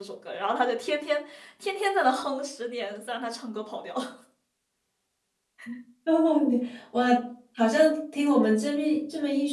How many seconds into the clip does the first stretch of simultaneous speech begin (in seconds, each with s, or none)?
none